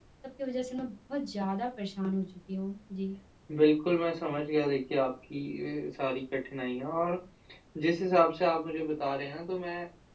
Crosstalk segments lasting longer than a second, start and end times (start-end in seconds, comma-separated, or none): none